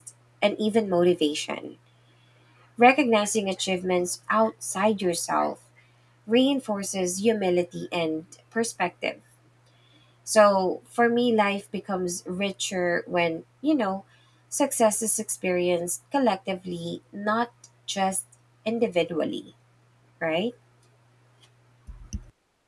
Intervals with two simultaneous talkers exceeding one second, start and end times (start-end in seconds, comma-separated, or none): none